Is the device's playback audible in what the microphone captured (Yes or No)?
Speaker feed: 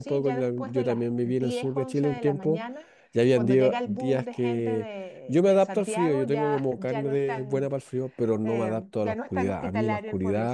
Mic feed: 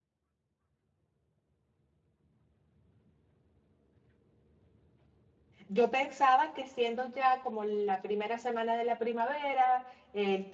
No